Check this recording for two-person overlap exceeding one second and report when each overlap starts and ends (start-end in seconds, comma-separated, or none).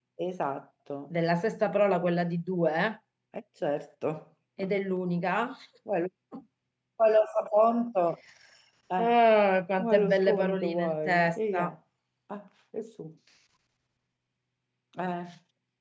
9.8-11.6